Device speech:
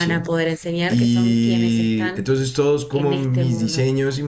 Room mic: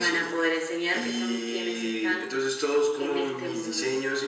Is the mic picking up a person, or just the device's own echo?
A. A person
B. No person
B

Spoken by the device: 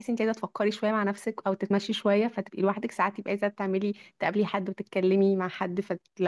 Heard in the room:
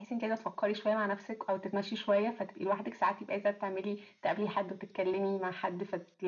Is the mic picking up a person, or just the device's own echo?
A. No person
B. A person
A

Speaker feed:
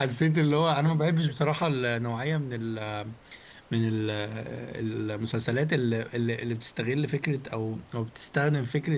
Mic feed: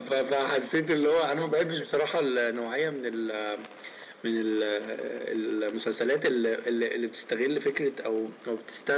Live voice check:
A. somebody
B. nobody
B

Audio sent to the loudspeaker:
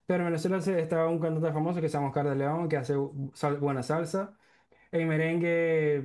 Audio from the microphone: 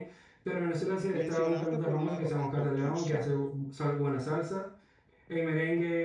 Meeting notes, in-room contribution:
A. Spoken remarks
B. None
A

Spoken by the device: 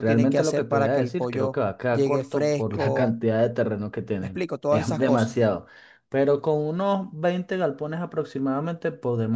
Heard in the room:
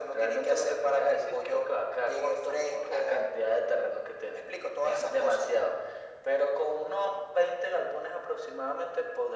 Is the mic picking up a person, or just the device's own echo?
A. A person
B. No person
B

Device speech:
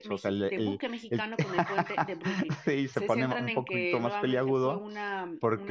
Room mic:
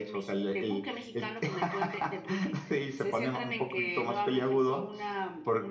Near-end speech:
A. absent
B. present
A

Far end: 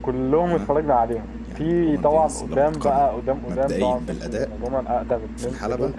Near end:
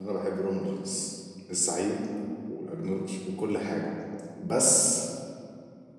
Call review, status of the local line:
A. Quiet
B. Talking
B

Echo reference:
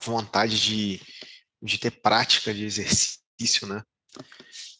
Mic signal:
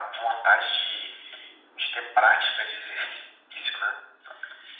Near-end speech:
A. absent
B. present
A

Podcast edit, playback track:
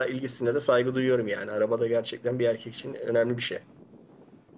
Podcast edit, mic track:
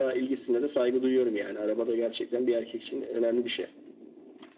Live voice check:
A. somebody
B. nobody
B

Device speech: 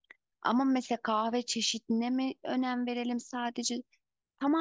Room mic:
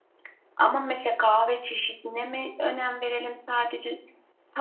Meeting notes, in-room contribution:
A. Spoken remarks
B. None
B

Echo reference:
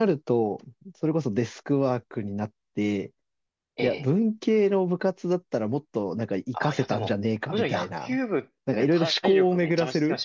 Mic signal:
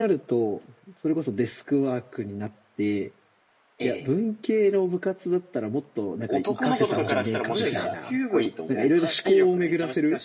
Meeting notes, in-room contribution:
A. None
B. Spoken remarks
B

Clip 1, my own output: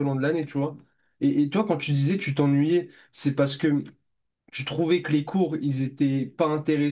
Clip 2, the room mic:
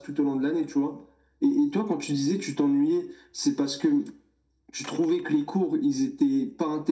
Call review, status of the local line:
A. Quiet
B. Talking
A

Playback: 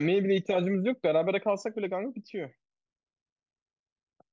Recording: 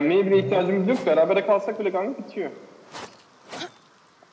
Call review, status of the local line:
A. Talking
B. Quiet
A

